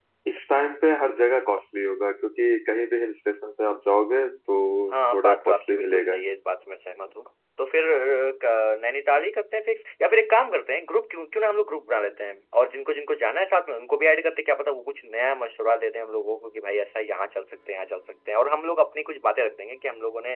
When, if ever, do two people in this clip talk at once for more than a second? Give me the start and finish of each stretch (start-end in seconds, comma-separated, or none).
5.1-6.4